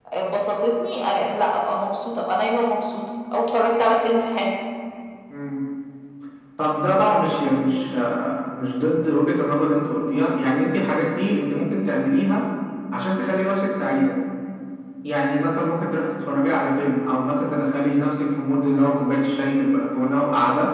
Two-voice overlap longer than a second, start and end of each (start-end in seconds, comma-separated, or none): none